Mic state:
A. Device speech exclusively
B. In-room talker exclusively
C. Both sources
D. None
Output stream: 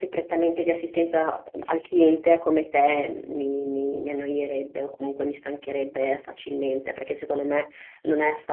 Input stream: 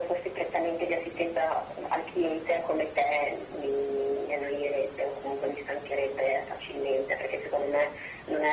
A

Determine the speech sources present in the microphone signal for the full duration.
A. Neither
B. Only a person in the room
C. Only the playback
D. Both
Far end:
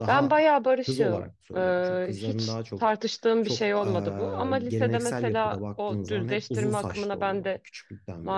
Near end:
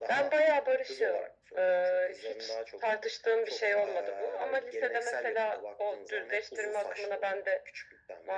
C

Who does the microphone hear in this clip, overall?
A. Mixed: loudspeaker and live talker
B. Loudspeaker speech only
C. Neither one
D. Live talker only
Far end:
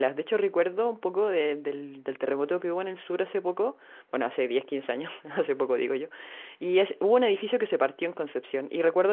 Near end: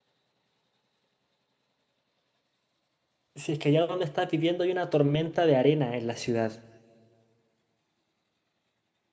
D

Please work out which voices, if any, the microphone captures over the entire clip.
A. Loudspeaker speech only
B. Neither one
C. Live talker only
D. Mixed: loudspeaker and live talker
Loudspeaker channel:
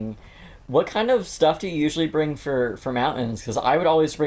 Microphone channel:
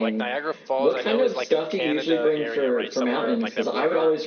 D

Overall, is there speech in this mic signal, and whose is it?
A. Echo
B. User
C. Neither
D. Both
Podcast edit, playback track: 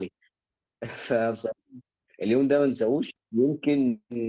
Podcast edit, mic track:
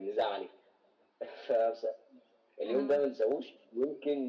D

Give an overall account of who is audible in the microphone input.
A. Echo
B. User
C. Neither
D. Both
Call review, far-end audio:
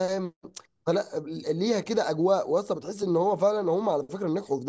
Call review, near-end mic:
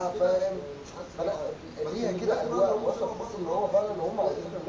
D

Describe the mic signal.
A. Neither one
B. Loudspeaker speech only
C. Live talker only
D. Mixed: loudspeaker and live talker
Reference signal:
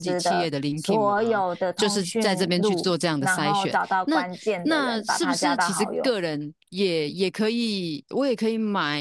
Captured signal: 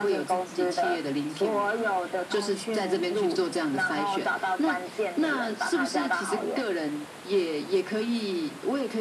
B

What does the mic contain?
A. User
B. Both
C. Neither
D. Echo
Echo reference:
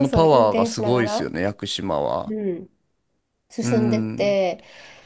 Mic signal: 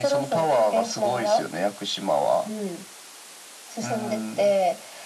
D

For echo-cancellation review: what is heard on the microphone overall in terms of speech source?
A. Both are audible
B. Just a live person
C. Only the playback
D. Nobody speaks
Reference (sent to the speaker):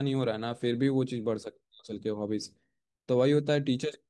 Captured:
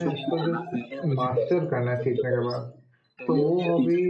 A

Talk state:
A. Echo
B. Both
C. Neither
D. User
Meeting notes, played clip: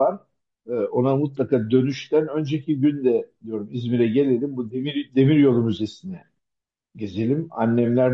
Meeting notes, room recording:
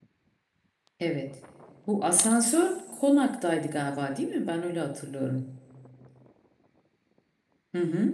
D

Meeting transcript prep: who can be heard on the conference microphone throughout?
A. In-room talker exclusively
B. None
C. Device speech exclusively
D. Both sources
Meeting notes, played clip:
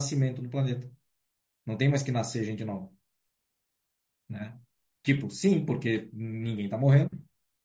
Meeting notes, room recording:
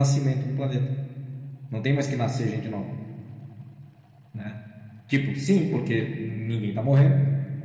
C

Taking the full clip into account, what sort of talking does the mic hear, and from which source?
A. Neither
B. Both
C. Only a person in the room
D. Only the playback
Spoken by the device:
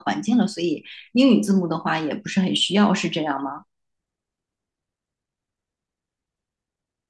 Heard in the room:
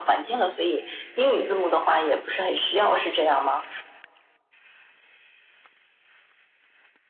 D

